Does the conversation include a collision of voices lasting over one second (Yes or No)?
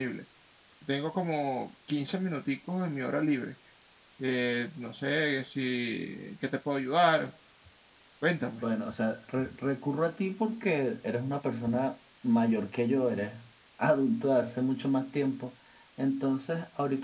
No